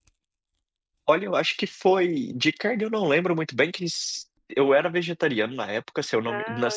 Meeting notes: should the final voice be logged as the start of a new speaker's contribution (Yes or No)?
No